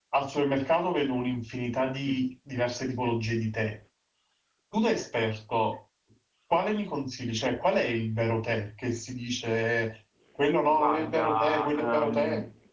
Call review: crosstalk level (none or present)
present